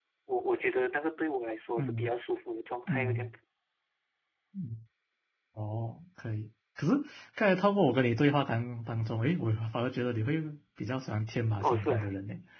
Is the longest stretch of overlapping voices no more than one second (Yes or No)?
Yes